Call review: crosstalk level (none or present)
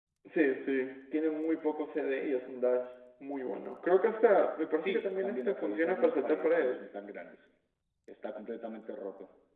present